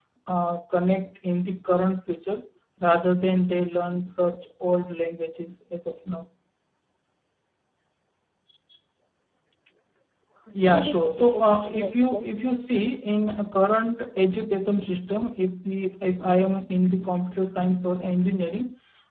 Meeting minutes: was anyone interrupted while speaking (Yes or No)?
Yes